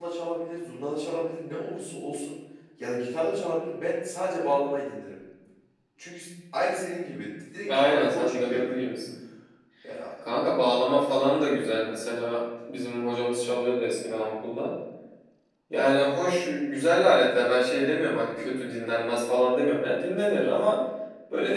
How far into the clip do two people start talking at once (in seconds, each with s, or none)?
7.7 s